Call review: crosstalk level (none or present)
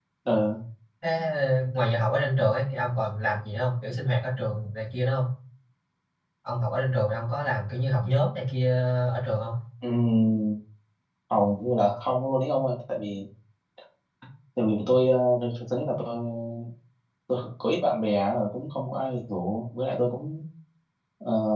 none